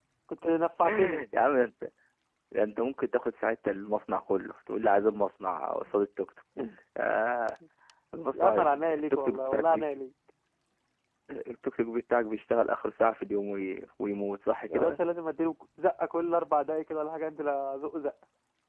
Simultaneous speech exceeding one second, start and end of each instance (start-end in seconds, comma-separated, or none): 8.3-10.0